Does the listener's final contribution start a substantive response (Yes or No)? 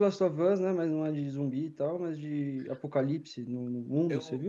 Yes